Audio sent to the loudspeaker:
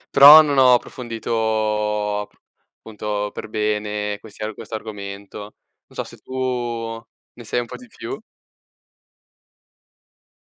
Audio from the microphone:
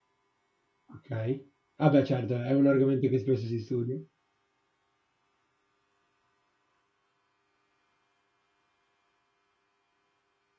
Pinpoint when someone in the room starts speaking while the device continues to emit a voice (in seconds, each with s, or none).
0.9 s